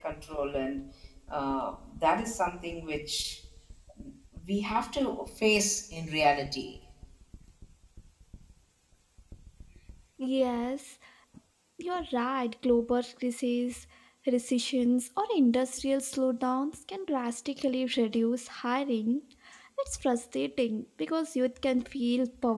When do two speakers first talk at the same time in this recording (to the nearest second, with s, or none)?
none